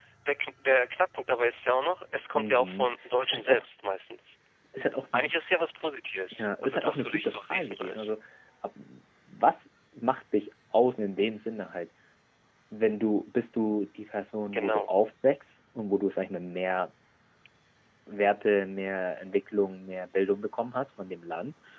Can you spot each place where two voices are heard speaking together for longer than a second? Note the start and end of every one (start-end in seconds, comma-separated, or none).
2.3-3.6, 6.4-8.1